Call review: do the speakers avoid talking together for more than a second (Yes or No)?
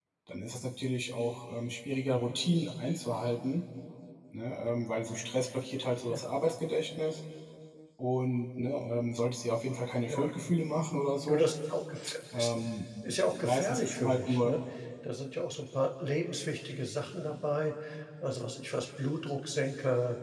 No